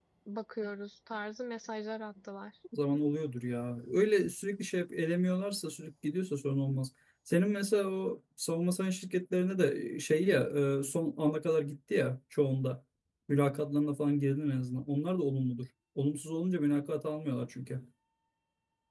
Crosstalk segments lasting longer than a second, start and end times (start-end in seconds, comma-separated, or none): none